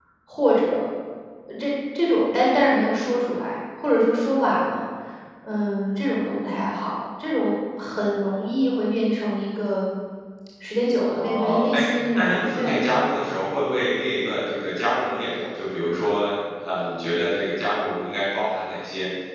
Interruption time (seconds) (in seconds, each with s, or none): 11.2 s